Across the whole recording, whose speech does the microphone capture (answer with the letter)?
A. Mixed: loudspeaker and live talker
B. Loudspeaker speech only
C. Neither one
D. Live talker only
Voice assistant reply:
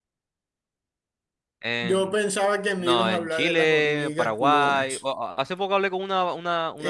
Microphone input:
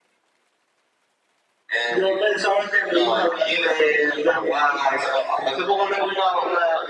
B